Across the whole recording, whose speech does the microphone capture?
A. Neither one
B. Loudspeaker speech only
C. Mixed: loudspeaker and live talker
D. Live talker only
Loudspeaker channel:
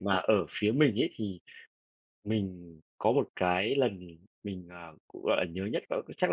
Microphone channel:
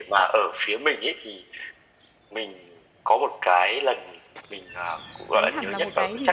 C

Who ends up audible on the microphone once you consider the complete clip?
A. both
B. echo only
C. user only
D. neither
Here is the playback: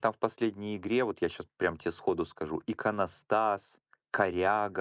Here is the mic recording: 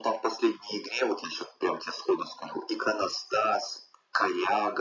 B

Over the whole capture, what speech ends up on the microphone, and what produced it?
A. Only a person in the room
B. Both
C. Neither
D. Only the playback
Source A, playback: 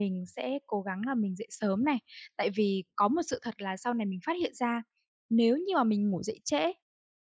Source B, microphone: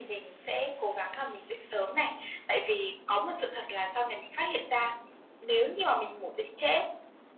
D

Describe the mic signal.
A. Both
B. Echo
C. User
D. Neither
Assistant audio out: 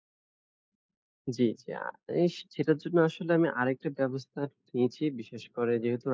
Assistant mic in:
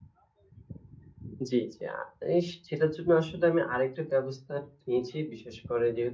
B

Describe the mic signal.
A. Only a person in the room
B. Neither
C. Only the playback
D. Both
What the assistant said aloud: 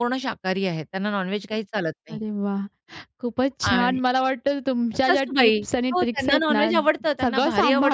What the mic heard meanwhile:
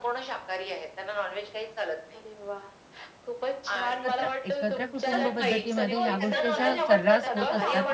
D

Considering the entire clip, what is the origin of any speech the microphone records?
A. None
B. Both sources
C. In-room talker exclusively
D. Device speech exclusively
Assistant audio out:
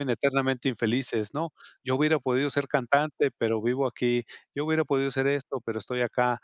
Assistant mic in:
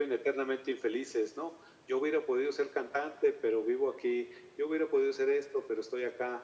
D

